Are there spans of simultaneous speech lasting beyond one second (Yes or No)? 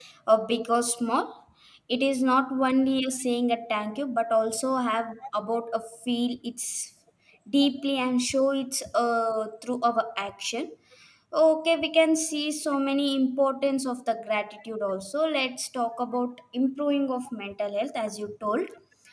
No